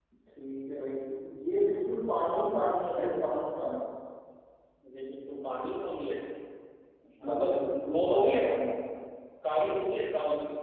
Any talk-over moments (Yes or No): Yes